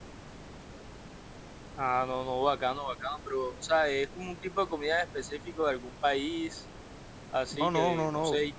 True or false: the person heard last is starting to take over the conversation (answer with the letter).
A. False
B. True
B